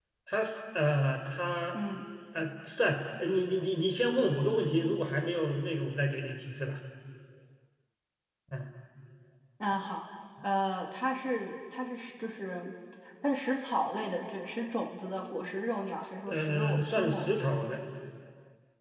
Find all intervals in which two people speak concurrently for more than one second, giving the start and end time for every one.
16.3-17.6

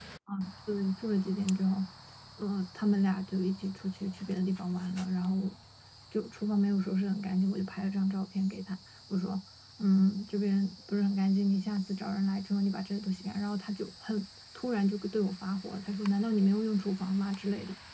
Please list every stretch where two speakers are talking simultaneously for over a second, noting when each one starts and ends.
none

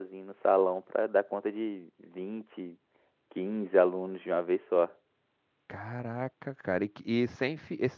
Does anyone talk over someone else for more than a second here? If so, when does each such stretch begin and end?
none

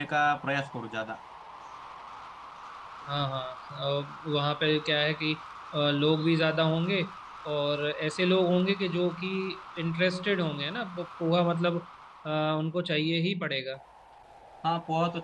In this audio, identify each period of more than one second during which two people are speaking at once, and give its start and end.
none

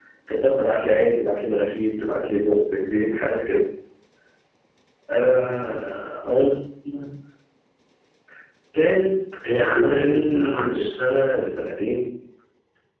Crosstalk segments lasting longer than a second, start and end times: 9.6-11.0

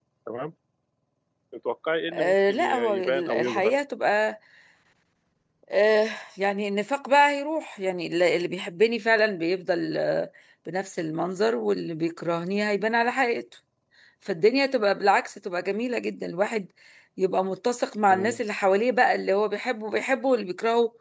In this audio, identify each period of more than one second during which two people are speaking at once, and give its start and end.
2.1-3.8

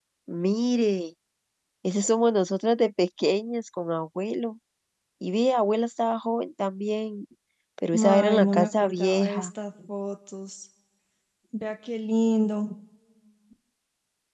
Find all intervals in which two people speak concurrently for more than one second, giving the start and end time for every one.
7.9-9.5

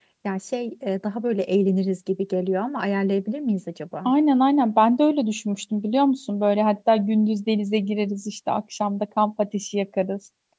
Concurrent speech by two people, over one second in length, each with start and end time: none

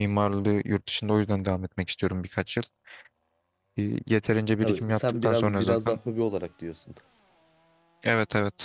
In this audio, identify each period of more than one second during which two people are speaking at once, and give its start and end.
4.6-6.0

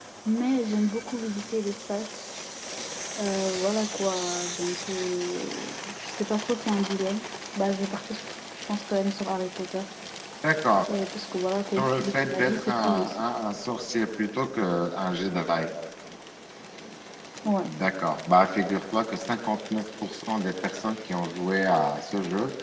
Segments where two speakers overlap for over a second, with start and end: 11.8-13.2

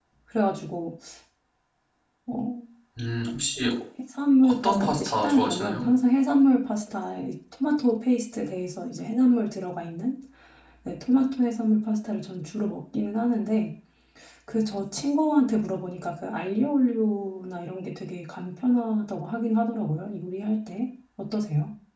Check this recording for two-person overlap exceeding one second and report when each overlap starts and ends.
4.4-5.9

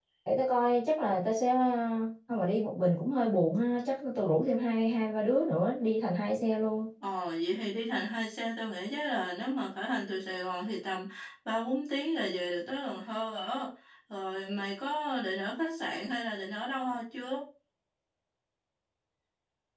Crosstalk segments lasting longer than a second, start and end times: none

